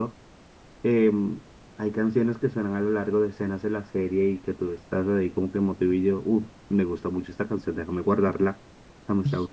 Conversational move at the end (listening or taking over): taking over